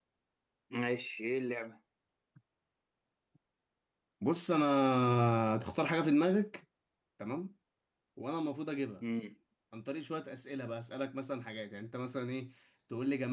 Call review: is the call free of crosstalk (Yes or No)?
Yes